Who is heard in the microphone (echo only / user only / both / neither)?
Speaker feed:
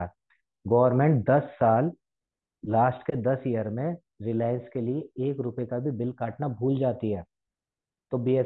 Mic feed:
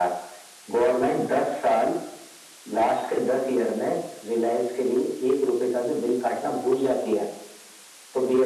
echo only